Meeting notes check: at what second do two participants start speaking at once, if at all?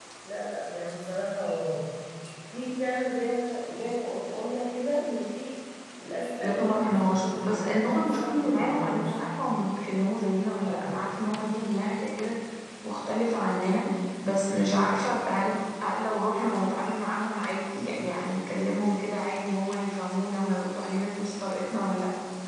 6 s

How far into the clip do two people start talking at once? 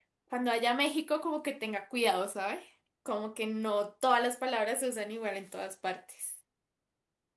none

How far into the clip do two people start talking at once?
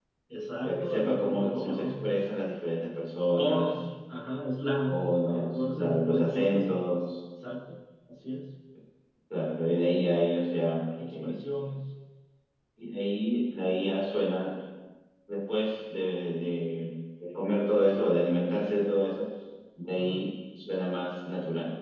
1 s

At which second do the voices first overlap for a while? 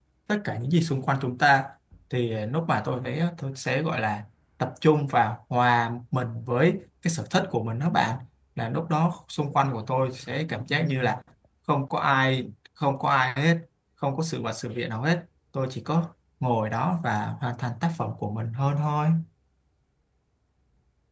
none

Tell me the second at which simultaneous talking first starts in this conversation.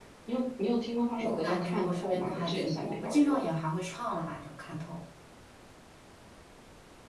1 s

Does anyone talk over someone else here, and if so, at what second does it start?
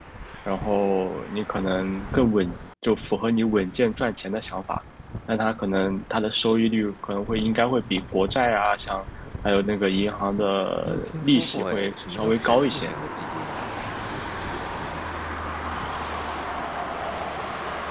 11 s

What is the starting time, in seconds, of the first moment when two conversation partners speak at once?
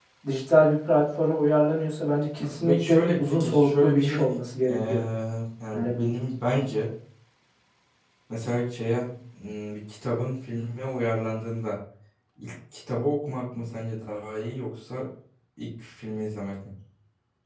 3 s

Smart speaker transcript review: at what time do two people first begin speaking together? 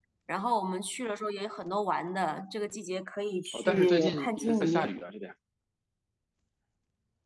4 s

